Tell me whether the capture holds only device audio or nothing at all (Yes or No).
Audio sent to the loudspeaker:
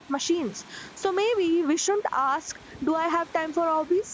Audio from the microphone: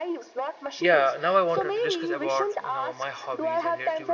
No